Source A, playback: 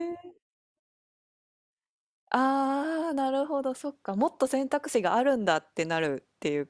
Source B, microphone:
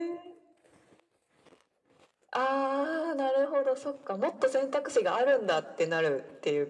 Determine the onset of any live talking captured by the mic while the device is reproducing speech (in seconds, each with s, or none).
none